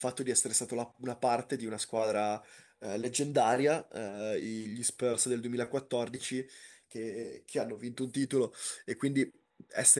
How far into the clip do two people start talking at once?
none

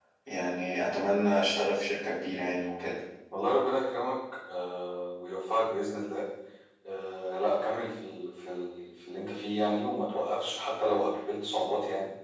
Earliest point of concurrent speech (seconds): none

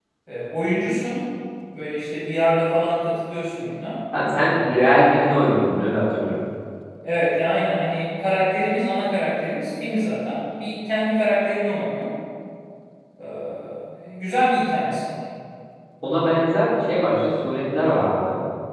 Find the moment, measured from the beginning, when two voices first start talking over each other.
none

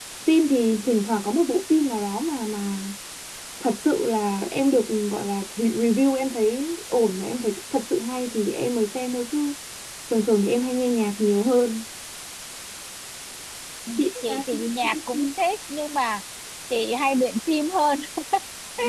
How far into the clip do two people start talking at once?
14.0 s

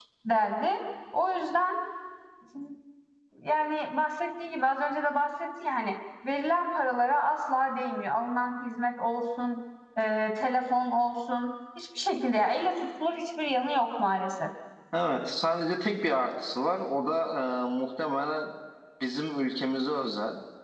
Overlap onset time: none

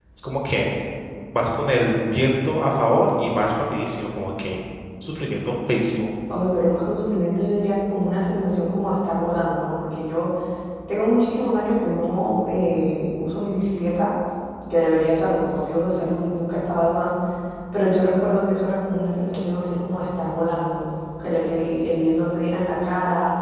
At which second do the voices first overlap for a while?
none

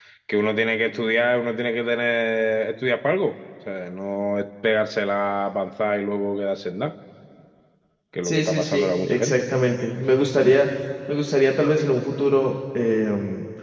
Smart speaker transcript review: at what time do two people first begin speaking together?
8.2 s

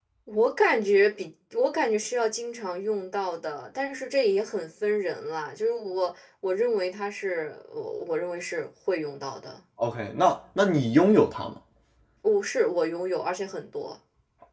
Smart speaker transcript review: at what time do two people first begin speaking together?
none

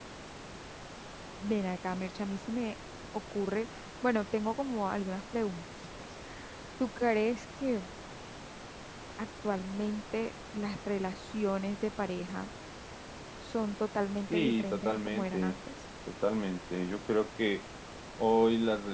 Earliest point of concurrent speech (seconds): 14.3 s

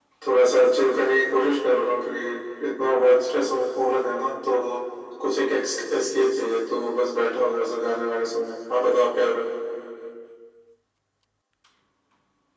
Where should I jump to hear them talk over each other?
none

